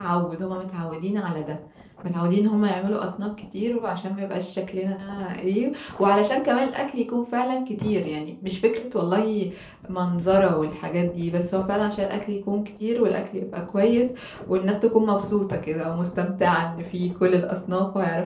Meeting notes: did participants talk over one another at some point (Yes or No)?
No